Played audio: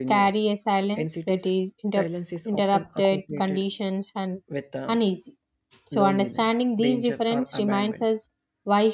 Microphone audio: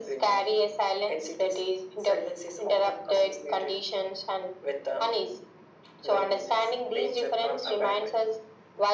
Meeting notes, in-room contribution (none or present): none